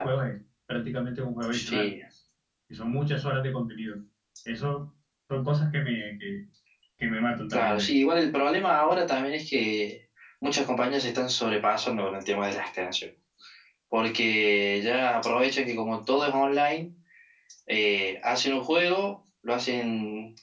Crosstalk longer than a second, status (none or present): none